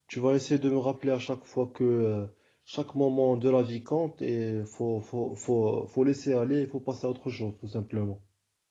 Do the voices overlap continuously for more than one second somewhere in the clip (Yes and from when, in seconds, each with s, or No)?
No